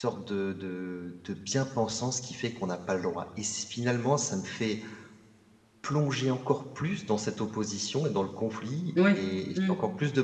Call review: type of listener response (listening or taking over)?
listening